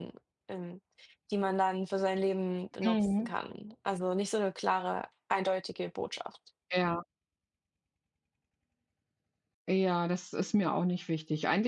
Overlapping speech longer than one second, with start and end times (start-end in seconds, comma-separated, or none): none